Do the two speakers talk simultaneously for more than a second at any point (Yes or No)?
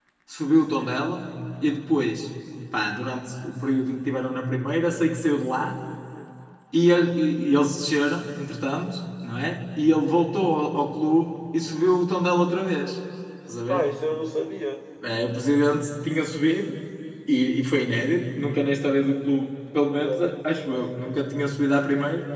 No